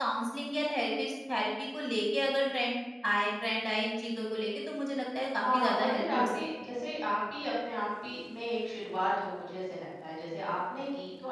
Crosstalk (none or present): present